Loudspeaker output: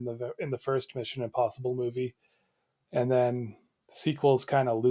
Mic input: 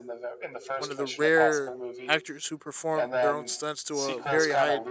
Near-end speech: present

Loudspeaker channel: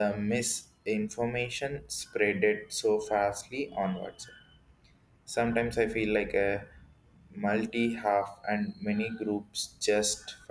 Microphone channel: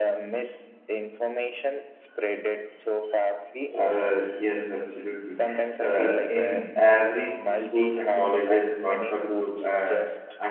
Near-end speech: present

